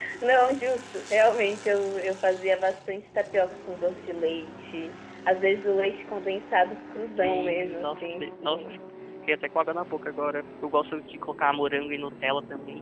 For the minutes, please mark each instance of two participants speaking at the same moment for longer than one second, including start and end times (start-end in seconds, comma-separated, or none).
7.2-8.7